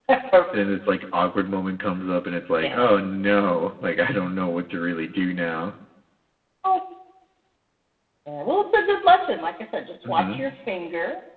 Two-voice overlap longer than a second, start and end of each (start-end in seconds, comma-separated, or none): none